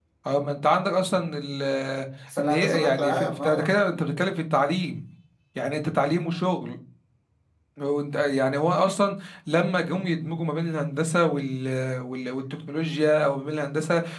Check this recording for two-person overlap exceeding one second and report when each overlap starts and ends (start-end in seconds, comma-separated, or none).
2.4-3.7